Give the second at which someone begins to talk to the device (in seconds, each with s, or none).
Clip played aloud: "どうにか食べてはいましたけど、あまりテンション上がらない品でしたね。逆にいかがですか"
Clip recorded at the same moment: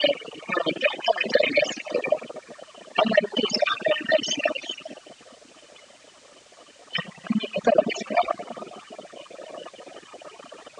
none